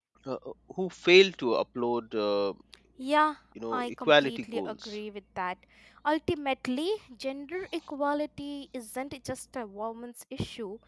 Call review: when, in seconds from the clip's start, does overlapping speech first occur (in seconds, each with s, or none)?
3.7 s